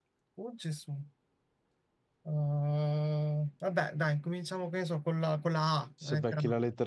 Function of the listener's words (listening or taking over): taking over